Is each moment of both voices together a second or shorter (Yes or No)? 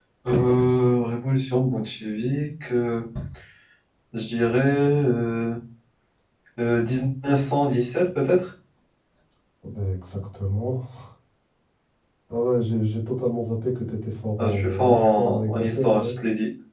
No